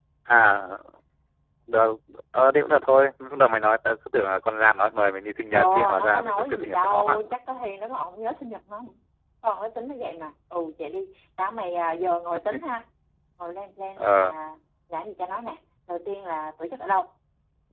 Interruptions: present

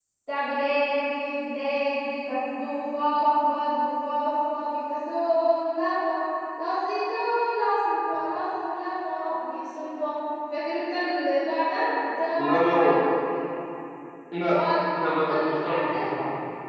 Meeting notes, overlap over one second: present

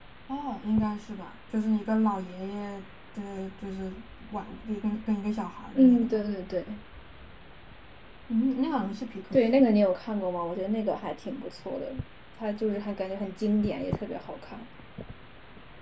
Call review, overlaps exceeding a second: none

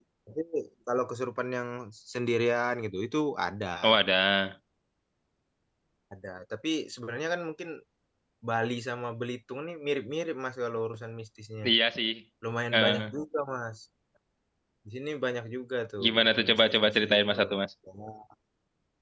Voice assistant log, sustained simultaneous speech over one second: present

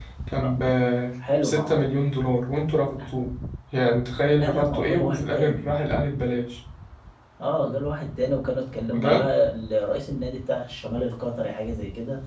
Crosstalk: present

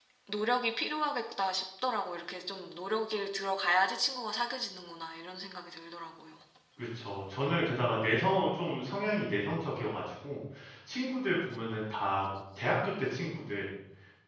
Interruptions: none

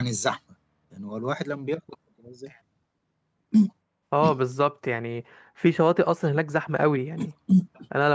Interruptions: none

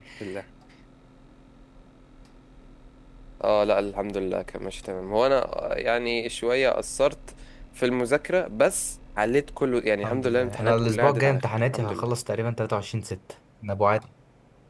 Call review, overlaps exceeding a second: present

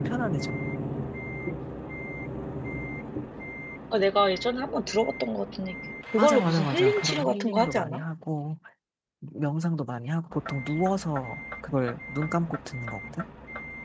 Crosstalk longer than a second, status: present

